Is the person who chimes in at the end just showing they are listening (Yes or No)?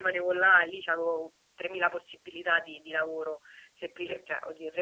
Yes